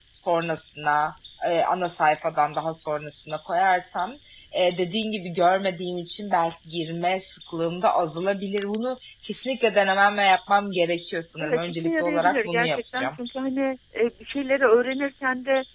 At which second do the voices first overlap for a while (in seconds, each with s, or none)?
11.4 s